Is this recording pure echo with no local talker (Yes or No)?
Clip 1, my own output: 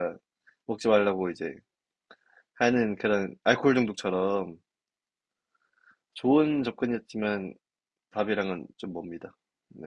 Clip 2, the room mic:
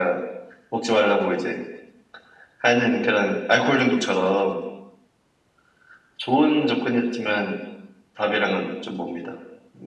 Yes